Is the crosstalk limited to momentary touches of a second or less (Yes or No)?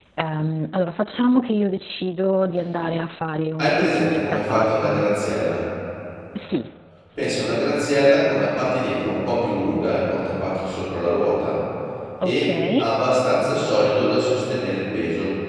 No